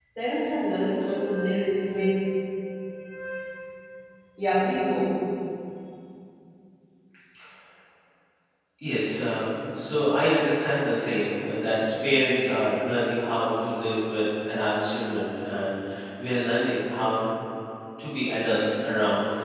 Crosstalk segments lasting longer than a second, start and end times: none

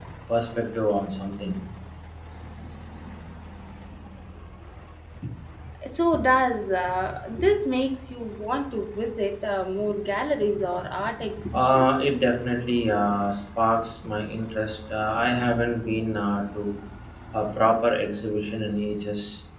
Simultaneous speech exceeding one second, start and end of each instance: none

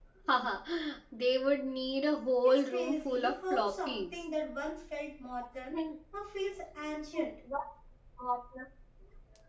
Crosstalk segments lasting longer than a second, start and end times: 2.4-4.0

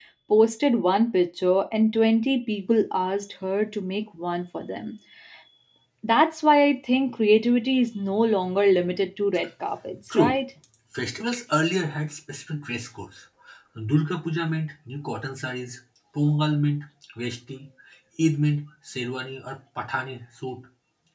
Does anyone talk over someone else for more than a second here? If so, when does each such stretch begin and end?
none

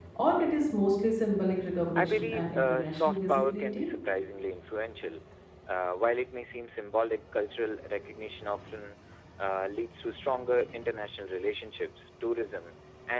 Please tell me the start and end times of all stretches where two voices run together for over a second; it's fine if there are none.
2.0-3.9

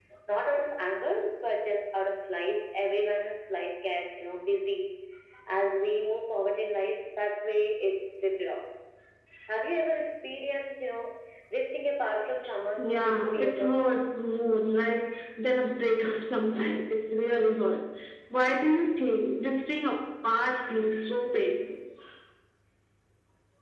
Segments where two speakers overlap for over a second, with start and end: 12.8-14.0

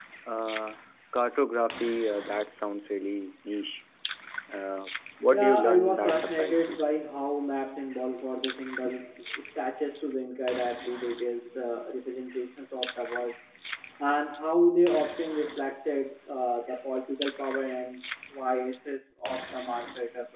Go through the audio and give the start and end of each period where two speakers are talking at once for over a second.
5.3-6.8

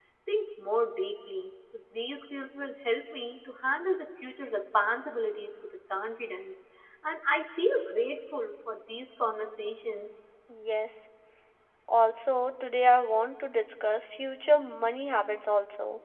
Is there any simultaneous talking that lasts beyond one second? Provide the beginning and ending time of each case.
none

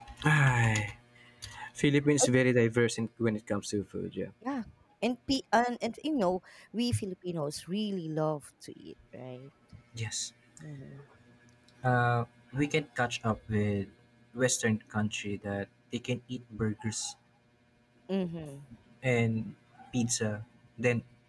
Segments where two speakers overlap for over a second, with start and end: none

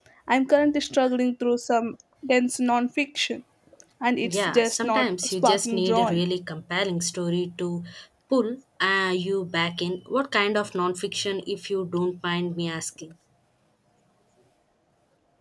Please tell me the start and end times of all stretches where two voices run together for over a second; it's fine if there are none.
4.2-6.2

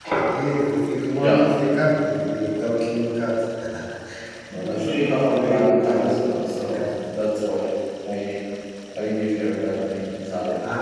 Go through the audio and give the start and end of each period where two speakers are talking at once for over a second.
4.6-6.8

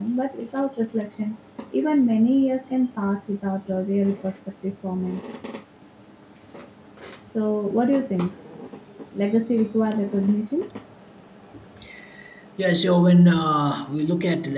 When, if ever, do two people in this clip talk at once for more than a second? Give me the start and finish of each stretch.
none

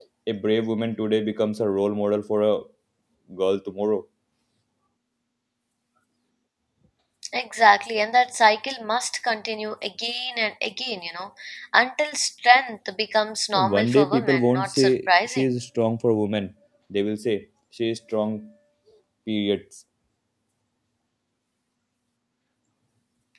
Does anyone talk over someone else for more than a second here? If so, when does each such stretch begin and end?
13.5-15.4

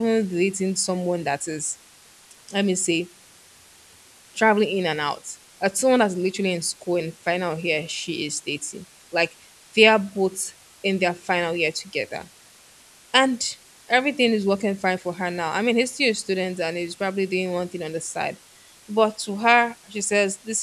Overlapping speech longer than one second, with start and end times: none

